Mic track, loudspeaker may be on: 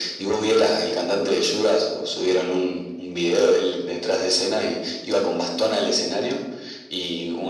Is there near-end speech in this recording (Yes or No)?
No